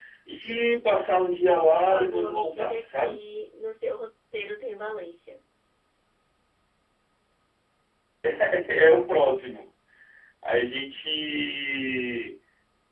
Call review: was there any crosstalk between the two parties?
Yes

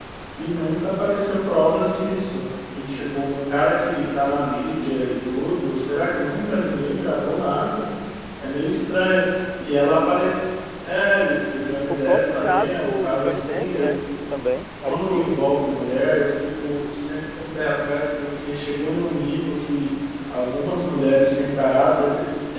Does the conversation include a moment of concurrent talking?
Yes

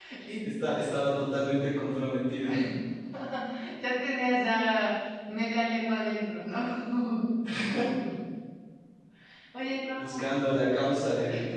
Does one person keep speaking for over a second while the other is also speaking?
No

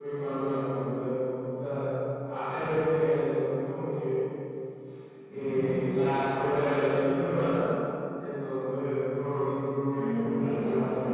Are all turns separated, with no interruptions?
No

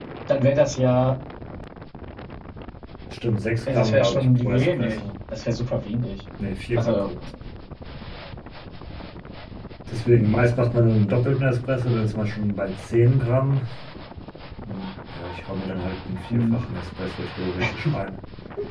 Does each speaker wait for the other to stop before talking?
No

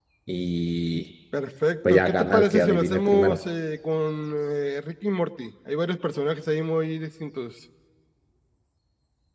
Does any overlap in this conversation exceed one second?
Yes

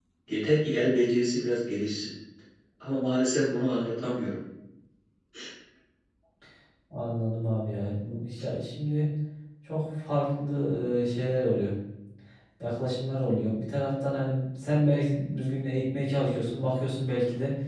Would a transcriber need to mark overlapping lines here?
No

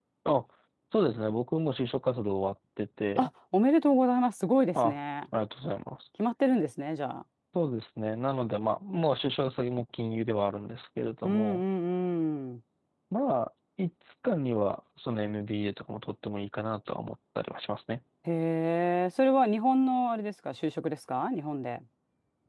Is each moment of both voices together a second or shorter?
Yes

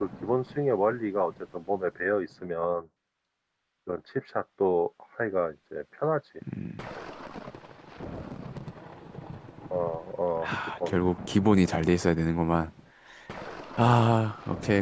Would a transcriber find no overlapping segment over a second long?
Yes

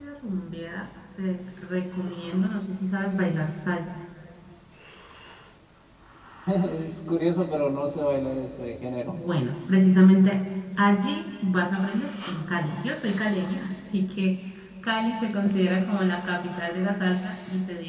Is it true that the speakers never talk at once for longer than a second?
Yes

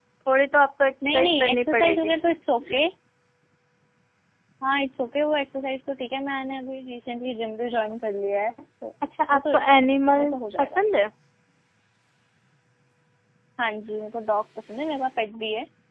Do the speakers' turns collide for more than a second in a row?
Yes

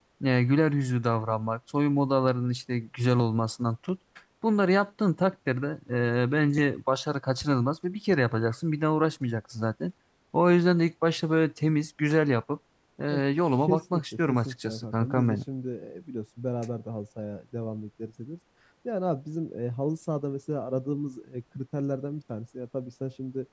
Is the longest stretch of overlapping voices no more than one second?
No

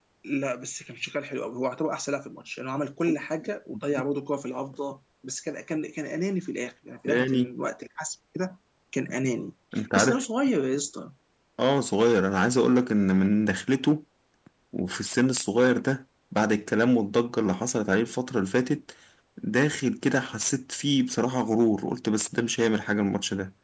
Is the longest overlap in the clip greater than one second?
No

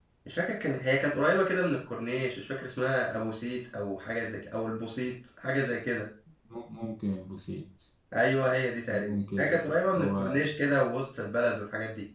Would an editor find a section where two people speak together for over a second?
Yes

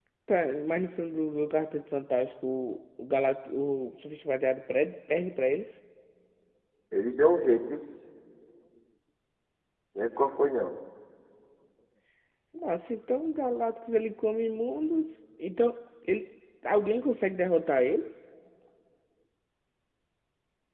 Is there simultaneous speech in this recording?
No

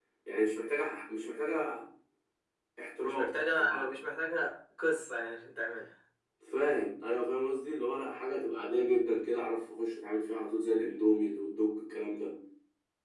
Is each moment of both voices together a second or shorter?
Yes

